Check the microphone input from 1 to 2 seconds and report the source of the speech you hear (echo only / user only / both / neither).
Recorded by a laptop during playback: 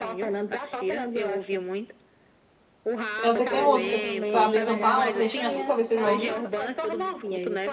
echo only